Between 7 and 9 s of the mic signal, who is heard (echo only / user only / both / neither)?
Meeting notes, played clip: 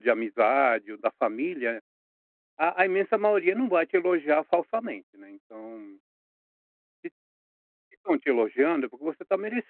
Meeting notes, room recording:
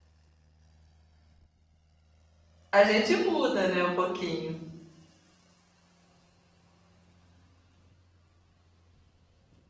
neither